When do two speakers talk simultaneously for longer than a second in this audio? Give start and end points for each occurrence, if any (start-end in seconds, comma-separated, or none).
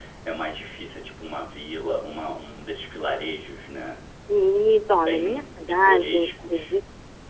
5.0-6.7